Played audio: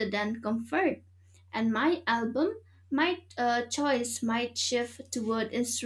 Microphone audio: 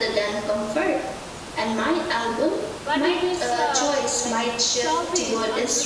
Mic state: both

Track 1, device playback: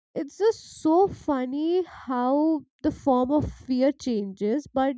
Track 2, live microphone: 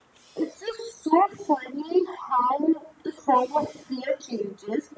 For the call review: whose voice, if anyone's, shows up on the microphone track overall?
echo only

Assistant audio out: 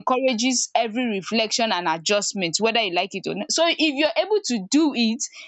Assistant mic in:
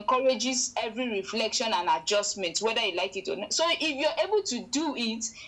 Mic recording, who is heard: echo only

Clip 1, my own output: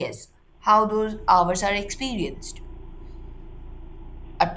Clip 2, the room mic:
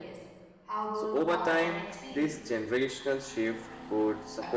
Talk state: both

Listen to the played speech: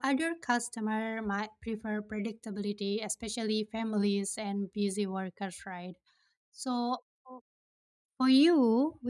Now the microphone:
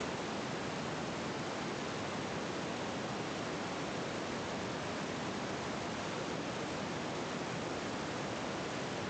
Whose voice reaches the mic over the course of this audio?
neither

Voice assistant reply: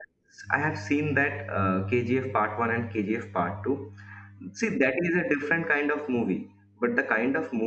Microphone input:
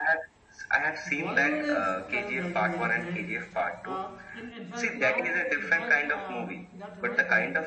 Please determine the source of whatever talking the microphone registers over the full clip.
both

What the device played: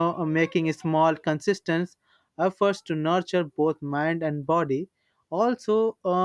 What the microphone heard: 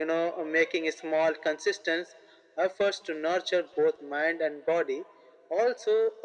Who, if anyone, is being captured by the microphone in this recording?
echo only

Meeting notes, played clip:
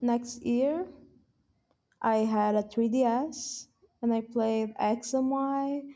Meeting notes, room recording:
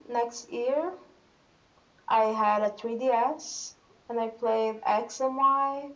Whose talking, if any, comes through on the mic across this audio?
echo only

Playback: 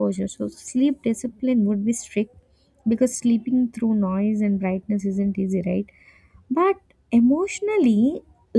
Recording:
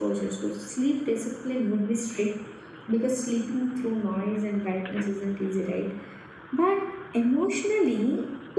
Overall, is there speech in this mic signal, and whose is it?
echo only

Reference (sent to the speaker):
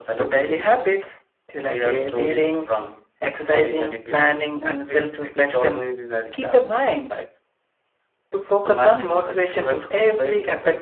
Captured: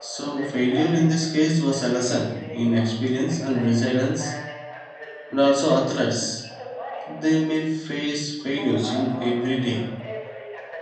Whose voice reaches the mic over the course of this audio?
both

